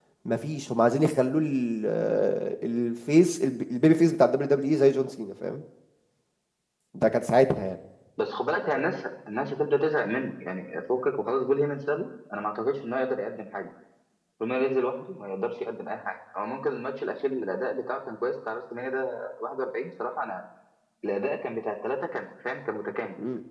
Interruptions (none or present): none